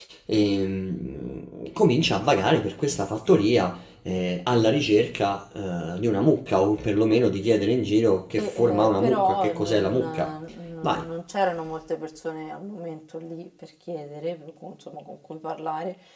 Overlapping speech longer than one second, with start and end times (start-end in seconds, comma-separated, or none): 8.4-10.3